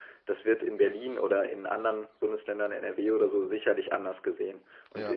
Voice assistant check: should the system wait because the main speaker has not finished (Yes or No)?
Yes